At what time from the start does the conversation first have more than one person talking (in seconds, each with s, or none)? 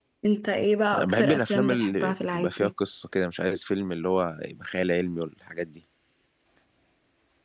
0.9 s